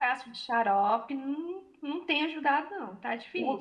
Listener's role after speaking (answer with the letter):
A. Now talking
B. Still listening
A